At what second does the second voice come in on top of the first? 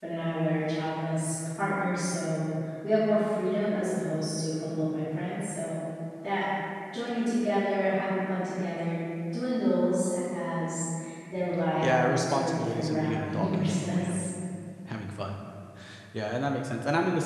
12 s

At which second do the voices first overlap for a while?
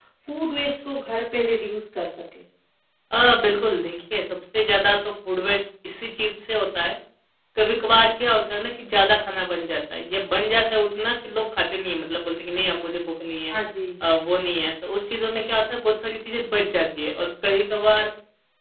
none

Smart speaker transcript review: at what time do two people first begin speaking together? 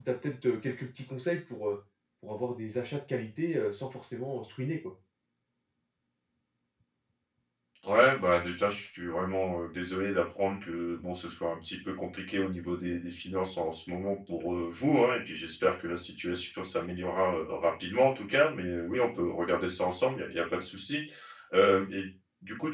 none

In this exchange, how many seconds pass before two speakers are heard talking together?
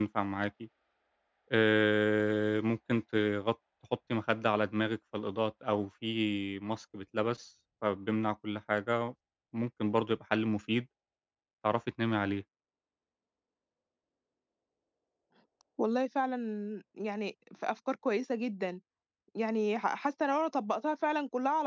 none

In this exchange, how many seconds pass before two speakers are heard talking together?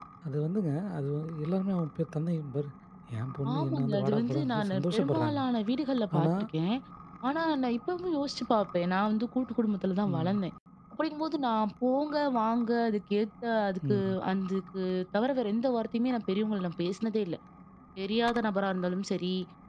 4 s

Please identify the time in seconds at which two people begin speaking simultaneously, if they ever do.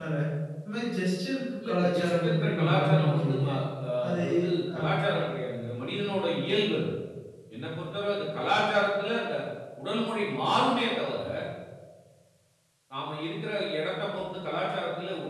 2 s

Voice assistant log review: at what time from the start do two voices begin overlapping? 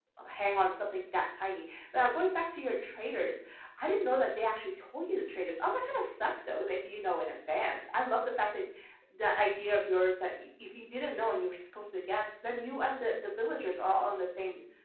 none

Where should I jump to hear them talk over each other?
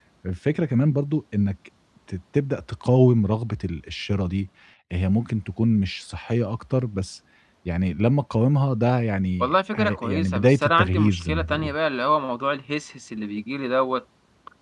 9 s

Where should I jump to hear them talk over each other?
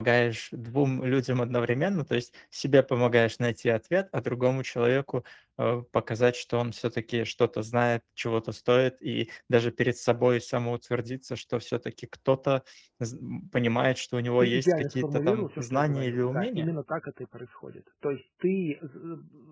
14 s

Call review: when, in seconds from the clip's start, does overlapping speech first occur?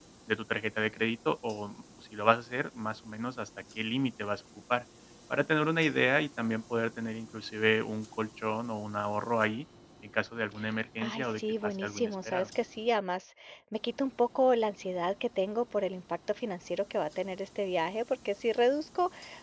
11 s

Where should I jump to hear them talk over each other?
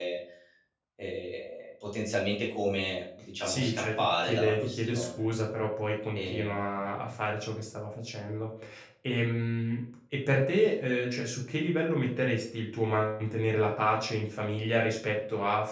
3 s

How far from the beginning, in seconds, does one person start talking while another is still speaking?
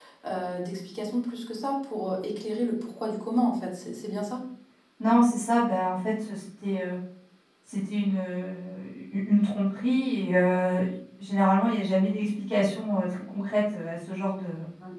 none

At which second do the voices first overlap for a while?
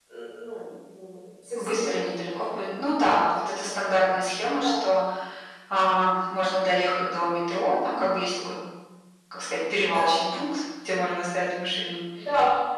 2 s

